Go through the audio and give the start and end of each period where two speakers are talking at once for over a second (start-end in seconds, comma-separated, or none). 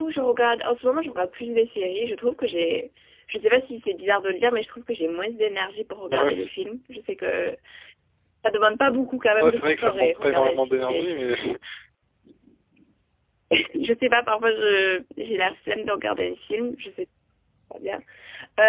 9.4-11.2